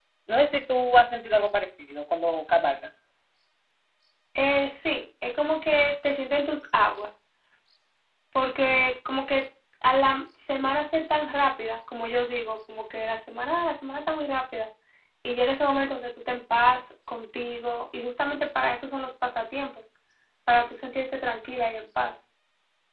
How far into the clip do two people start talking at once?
none

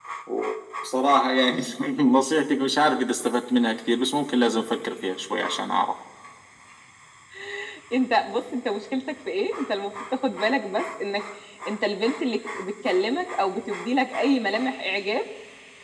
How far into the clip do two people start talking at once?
none

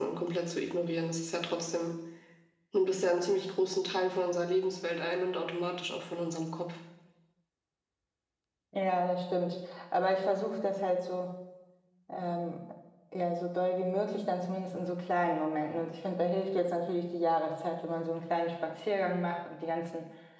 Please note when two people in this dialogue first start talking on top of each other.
none

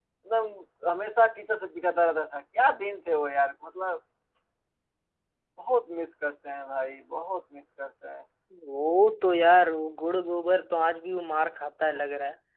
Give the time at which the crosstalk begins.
none

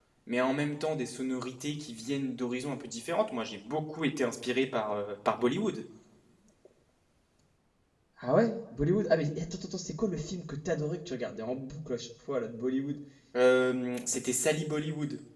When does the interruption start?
none

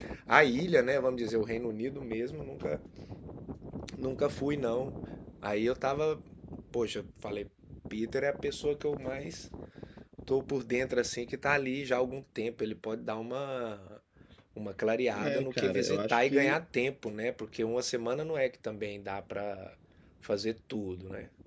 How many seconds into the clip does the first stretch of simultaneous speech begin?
15.1 s

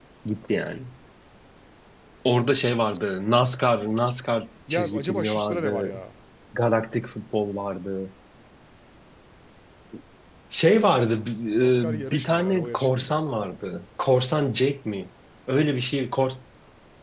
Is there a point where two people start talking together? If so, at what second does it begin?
4.7 s

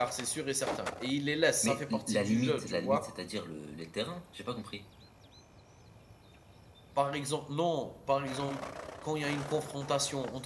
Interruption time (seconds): 1.6 s

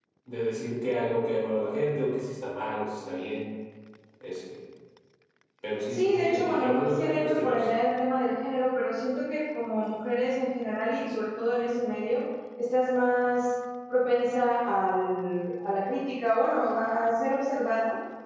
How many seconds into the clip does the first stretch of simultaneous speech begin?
5.9 s

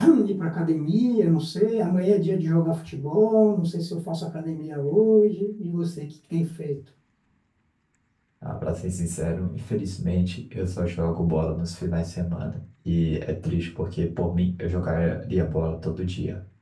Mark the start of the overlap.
none

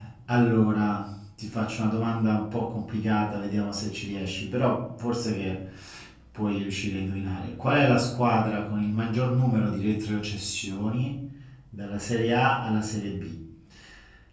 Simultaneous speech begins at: none

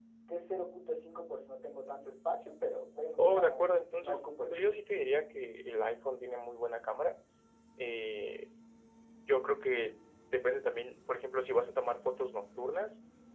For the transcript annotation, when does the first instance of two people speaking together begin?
3.2 s

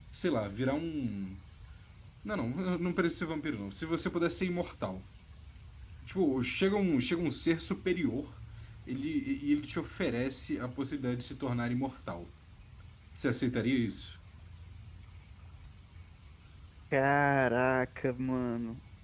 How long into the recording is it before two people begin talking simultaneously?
none

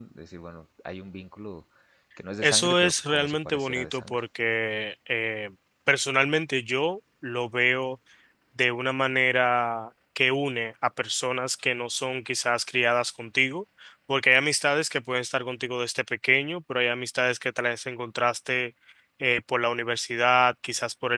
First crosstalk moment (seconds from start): 2.4 s

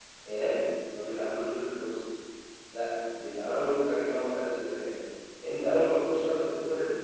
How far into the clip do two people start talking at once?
none

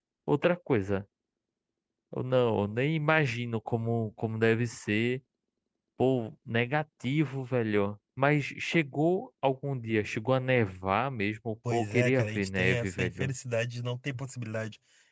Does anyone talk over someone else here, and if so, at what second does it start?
11.7 s

